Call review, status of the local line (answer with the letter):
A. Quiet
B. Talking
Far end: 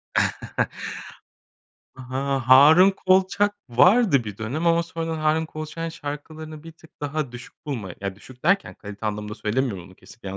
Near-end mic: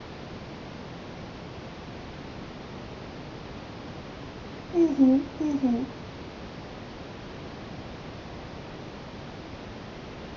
B